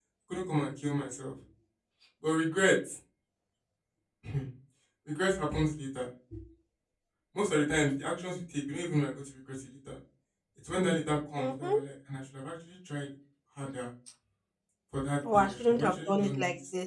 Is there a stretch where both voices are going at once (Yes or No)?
Yes